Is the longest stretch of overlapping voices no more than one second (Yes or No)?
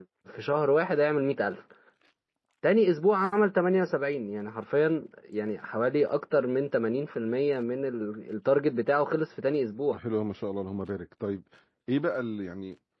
Yes